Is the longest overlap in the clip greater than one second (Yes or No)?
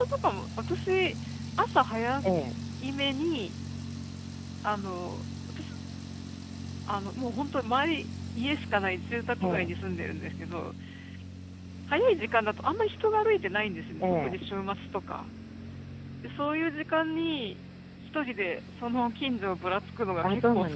No